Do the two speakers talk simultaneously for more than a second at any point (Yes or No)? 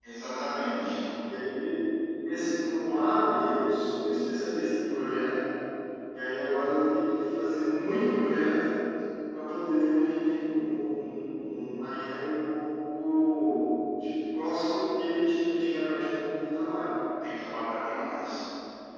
No